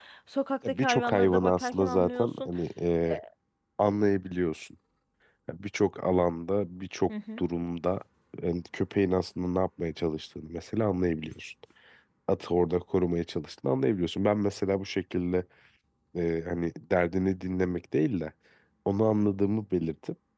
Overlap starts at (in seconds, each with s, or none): 0.7 s